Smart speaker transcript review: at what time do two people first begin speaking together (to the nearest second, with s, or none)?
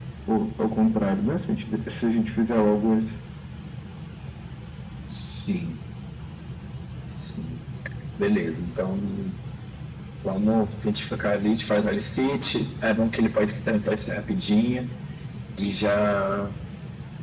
none